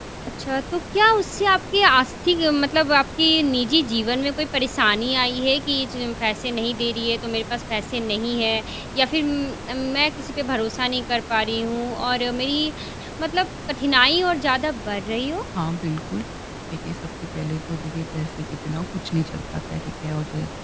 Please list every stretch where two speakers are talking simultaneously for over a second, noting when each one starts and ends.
none

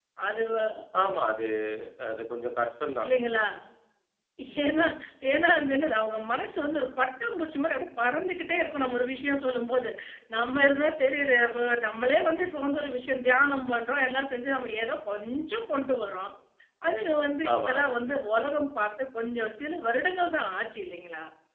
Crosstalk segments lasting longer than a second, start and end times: none

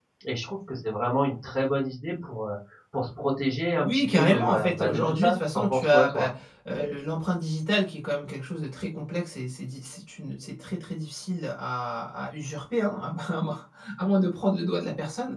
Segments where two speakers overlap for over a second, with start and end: 3.8-6.3

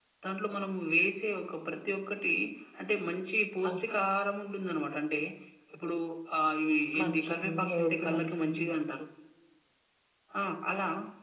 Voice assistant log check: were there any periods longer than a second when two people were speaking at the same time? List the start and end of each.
7.0-8.6

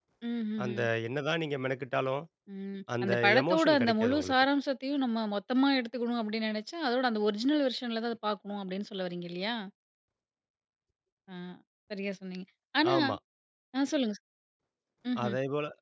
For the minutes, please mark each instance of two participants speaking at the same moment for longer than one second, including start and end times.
3.0-4.3

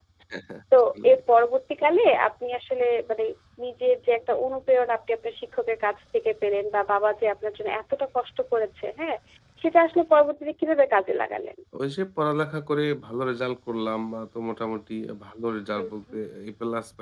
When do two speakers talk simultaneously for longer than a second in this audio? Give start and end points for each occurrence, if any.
none

